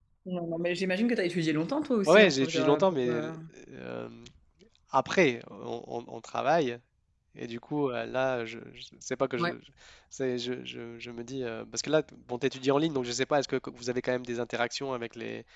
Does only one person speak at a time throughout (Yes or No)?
No